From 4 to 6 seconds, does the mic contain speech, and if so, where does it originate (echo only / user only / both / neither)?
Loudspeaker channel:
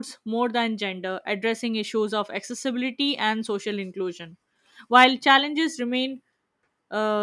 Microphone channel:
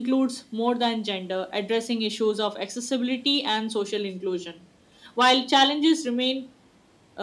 echo only